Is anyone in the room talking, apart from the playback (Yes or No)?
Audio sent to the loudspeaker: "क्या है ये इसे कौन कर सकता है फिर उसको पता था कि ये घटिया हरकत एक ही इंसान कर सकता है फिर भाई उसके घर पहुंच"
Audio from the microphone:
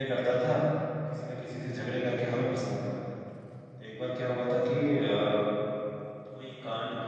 Yes